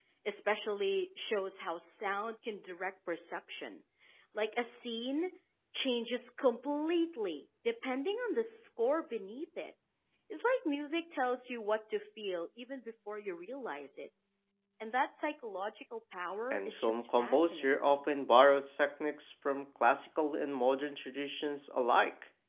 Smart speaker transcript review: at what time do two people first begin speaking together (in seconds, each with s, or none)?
16.5 s